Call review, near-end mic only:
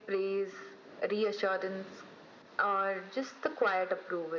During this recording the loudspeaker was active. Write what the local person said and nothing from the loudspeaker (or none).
none